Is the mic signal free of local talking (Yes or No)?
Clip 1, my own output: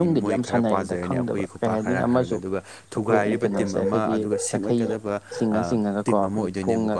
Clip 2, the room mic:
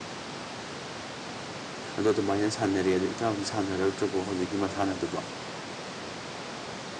No